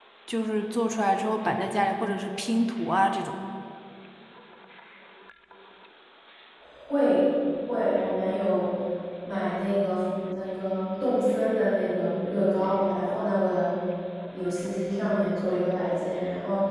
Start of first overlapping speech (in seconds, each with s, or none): none